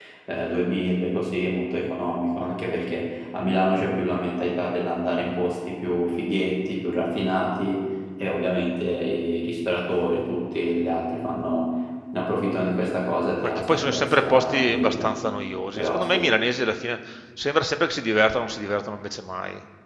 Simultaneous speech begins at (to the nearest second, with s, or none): 13 s